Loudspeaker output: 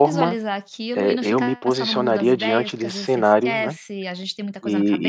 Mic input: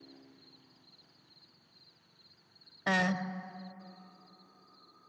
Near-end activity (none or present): present